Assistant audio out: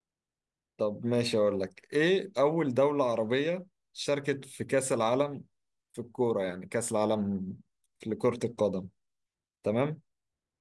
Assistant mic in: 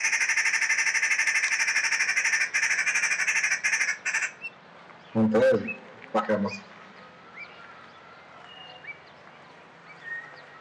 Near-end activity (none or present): present